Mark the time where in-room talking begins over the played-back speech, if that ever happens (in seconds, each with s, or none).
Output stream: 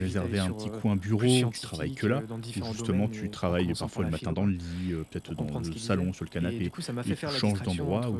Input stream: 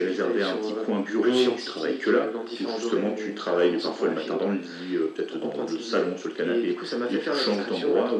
none